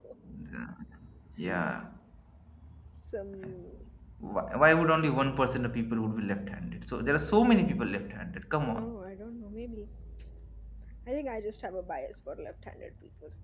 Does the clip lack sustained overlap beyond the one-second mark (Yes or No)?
Yes